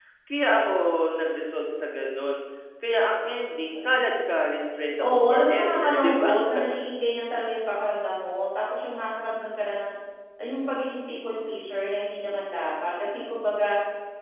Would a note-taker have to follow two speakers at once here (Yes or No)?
Yes